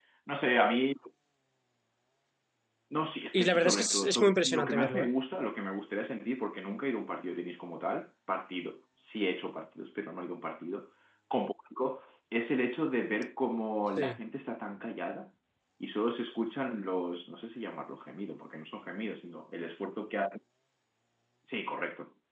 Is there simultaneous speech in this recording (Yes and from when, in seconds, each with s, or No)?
Yes, from 3.3 s